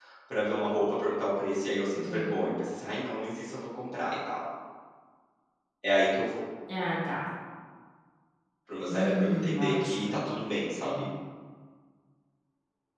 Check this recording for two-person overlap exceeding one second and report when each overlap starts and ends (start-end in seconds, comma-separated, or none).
8.9-10.2